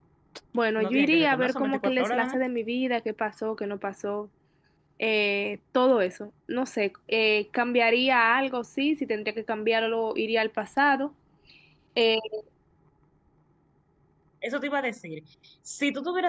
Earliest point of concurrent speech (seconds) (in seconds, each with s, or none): 0.8 s